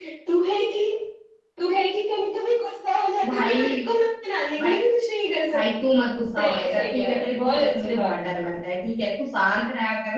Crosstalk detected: Yes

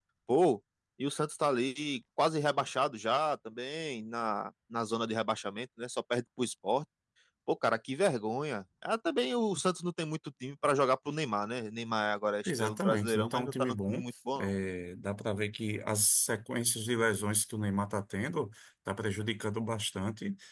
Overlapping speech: Yes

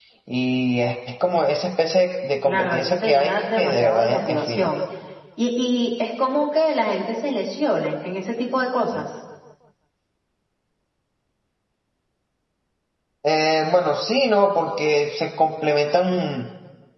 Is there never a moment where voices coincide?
No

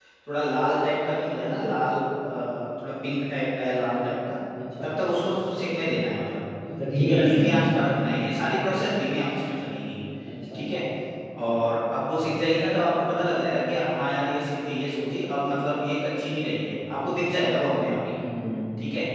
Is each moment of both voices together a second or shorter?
Yes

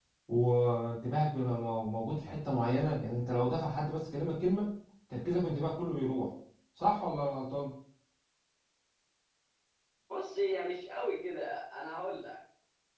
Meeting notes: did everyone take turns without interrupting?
Yes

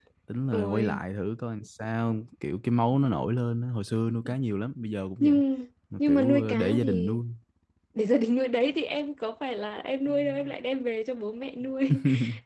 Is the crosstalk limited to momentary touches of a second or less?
No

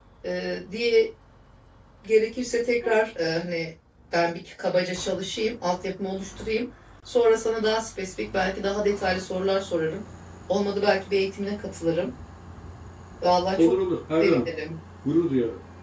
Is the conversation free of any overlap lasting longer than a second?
Yes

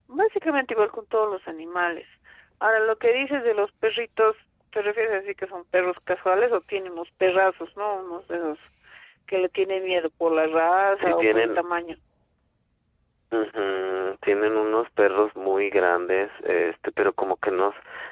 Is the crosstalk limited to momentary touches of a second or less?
Yes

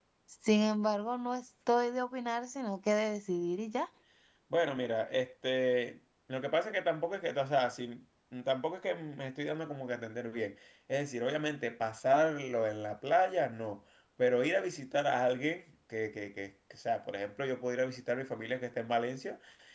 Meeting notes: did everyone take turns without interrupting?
Yes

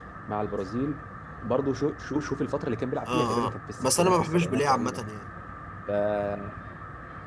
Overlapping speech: Yes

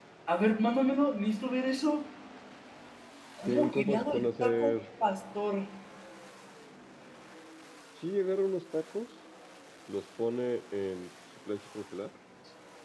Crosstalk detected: Yes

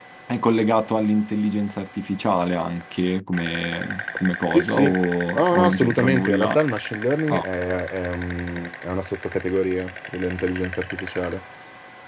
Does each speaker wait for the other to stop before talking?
No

